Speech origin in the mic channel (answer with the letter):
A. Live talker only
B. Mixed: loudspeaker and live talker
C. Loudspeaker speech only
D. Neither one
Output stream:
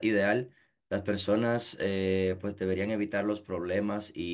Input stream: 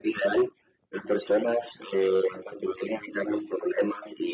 C